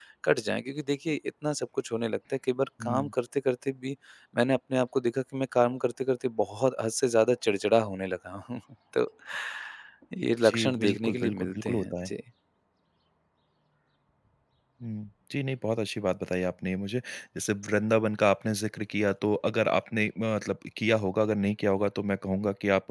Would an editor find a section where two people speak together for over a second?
Yes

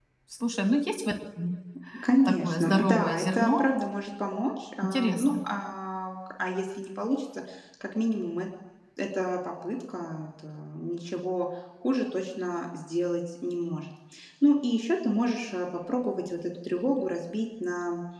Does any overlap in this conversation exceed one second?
Yes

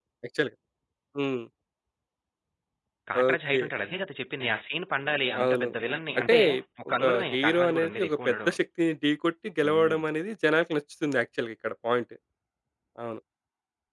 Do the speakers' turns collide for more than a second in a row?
Yes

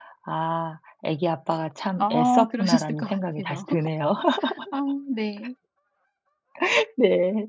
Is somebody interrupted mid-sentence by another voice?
Yes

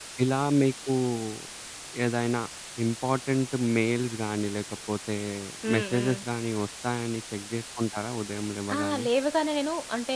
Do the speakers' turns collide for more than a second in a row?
No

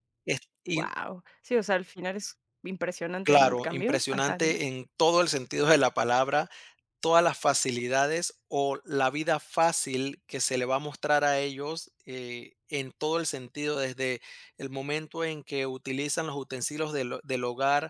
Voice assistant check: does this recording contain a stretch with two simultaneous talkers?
Yes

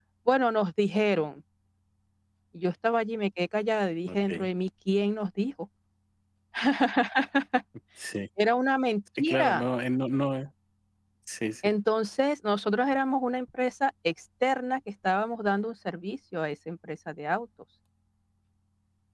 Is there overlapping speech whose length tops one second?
No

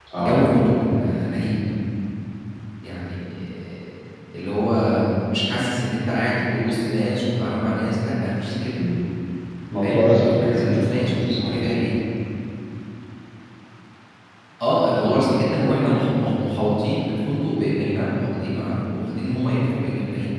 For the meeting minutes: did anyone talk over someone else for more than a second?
Yes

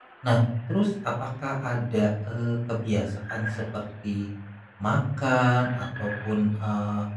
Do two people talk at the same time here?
No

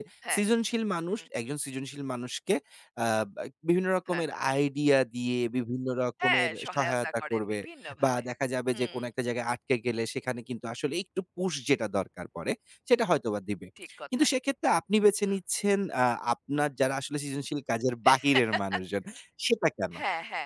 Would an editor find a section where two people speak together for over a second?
Yes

